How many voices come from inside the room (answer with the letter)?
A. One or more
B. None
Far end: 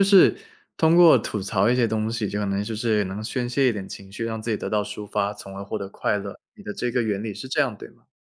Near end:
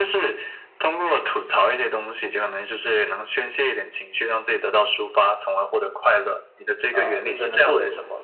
A